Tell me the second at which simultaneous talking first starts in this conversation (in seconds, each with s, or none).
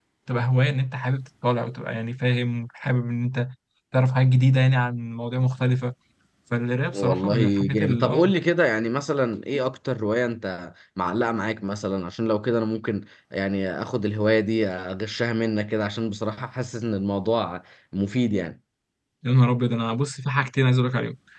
6.9 s